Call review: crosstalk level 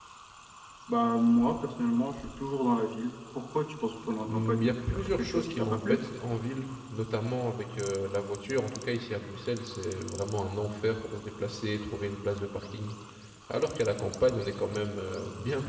present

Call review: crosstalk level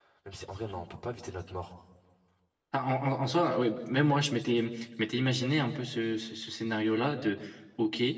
none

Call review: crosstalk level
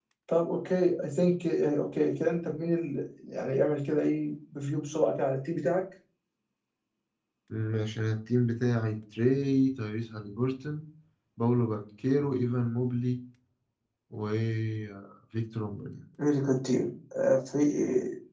none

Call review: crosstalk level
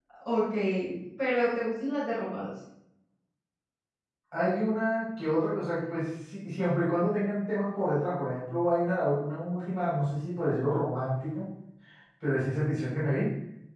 none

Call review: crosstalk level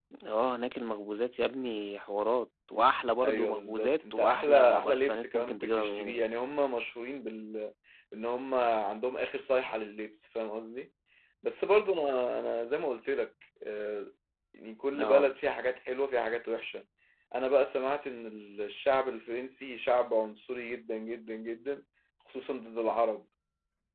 present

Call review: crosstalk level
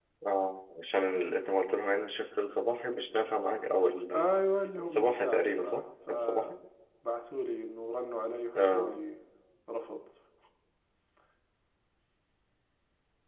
present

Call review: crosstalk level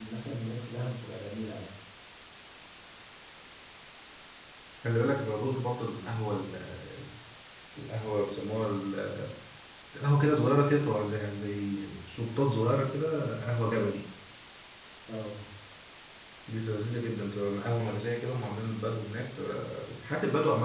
none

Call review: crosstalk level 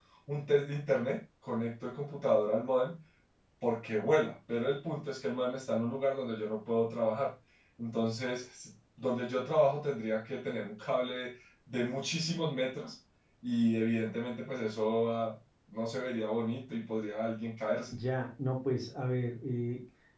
none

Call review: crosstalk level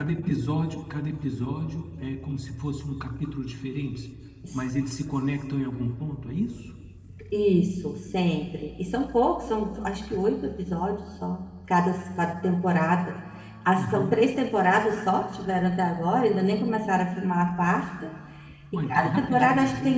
present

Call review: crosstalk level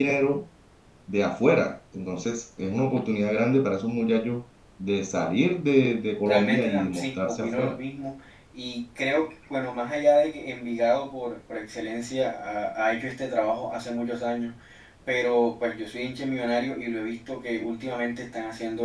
present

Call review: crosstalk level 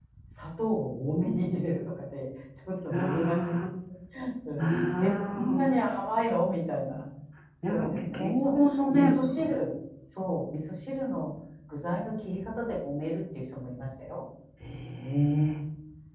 present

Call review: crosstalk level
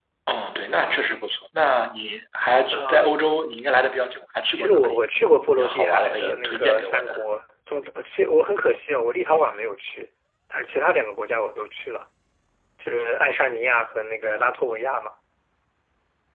present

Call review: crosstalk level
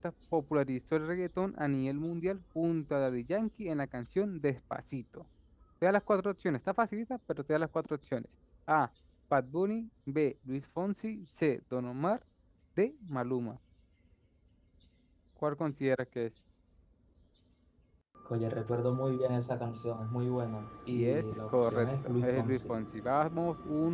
present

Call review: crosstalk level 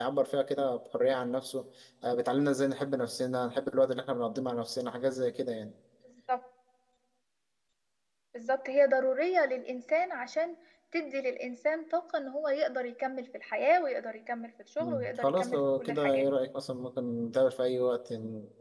present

